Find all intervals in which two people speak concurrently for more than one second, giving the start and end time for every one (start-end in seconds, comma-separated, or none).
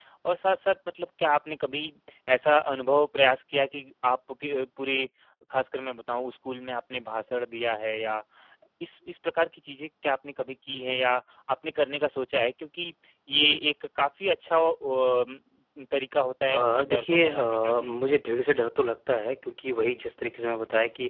16.5-18.0